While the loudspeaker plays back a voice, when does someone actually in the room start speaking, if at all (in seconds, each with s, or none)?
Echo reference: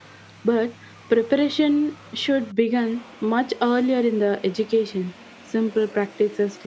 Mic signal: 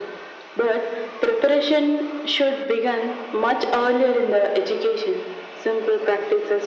none